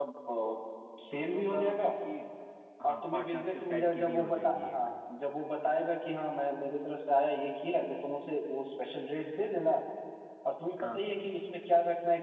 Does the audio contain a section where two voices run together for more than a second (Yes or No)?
Yes